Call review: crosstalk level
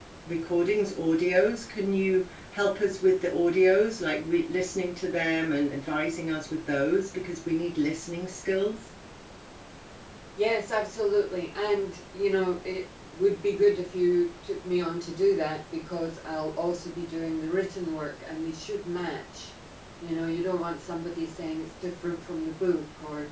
none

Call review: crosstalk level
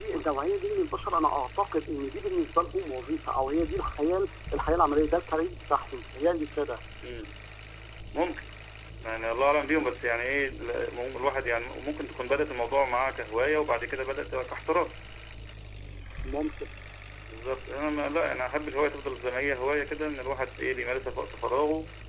none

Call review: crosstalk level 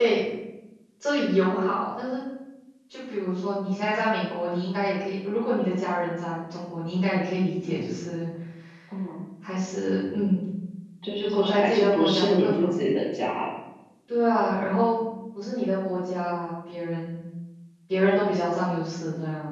present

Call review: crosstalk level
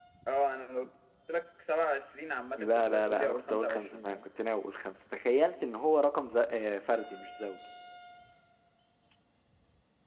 present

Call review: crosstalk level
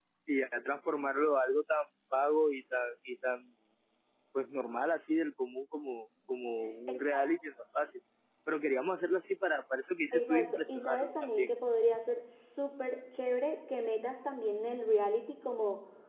present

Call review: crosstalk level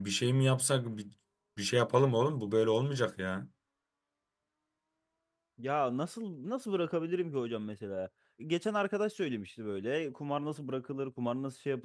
none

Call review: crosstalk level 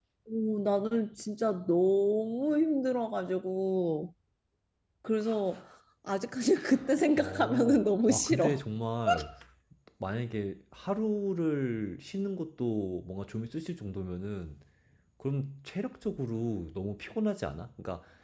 present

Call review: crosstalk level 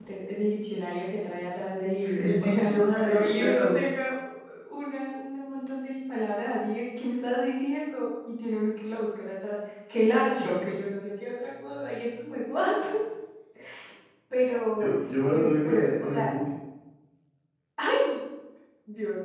present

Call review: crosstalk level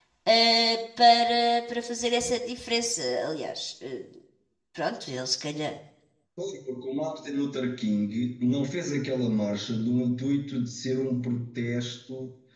none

